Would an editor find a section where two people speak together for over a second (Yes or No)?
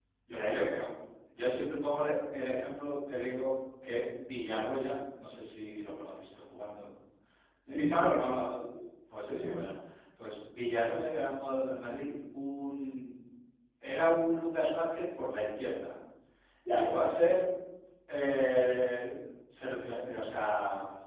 No